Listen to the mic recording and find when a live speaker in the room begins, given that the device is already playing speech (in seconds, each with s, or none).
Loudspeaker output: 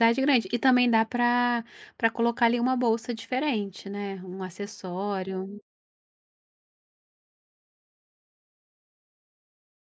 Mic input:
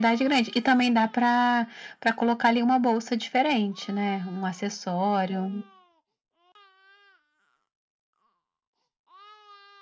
none